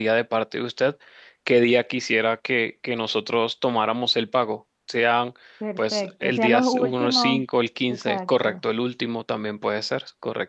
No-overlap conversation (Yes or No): No